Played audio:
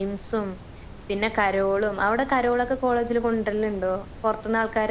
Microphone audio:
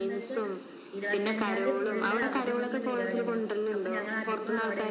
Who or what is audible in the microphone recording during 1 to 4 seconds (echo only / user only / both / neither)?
both